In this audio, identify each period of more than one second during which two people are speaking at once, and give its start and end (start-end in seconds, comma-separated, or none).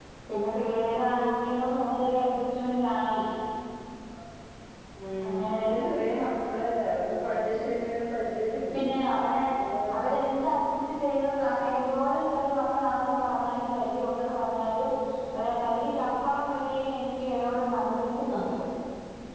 none